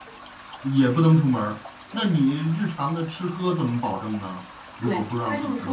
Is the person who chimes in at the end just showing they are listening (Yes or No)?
No